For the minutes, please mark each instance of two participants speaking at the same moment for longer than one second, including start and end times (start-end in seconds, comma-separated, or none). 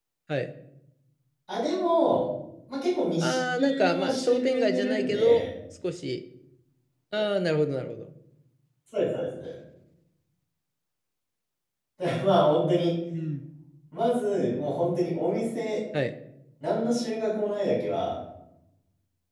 3.2-5.4